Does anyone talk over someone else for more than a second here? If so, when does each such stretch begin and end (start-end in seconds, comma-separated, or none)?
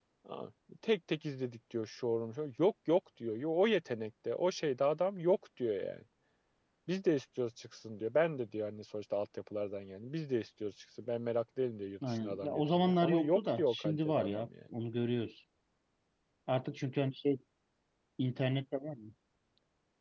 12.1-14.5